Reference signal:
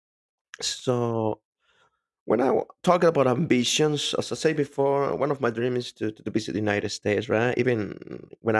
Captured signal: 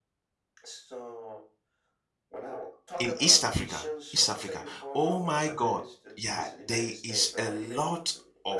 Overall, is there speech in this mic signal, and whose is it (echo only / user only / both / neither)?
both